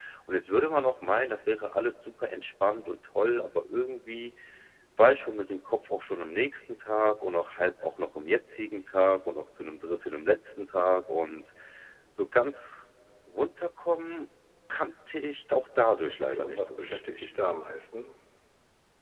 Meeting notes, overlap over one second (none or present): present